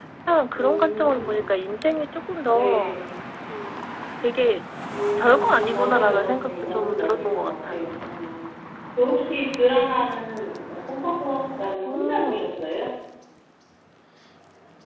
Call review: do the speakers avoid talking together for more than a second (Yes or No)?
No